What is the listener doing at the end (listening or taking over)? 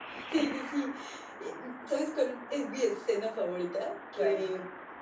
listening